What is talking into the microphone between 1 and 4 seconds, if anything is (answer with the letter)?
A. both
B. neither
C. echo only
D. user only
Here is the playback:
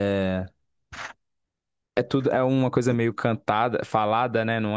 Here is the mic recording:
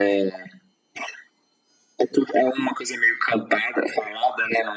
C